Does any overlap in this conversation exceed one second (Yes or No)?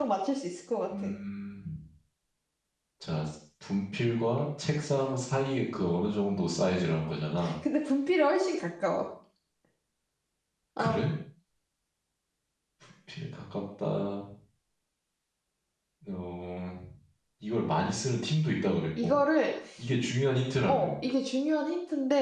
No